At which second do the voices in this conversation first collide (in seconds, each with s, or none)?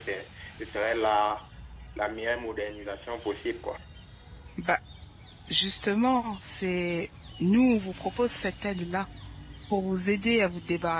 none